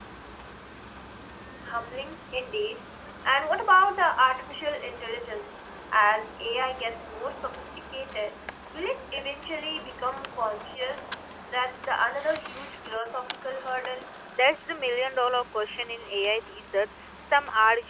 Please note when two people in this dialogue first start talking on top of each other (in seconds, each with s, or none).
none